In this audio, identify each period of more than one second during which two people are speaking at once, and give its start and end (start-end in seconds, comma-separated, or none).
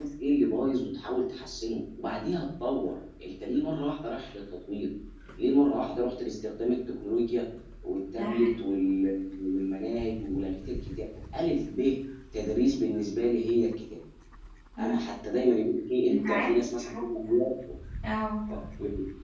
16.1-17.3